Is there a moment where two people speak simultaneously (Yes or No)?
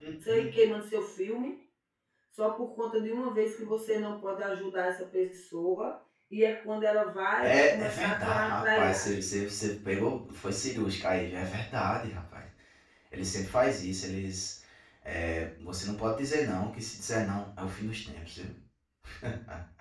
Yes